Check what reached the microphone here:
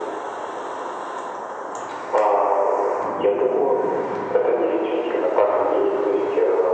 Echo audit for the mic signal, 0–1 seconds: neither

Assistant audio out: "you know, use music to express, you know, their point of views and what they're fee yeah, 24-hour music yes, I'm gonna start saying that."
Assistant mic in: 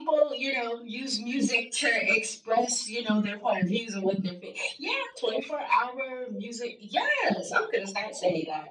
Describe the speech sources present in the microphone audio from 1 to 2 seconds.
echo only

